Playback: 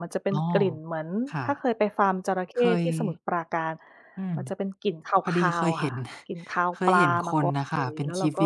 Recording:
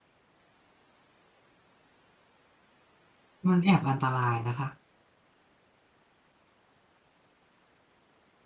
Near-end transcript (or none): มันแอบอันตรายนะคะ